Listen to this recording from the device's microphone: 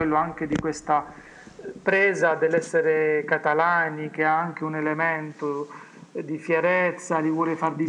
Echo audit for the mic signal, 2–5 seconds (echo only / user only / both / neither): echo only